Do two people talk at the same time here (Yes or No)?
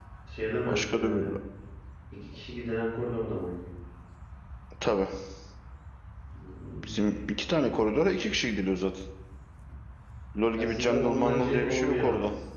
Yes